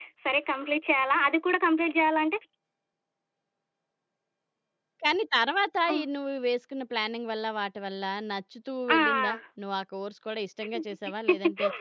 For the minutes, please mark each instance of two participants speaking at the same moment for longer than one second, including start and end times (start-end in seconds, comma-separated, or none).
none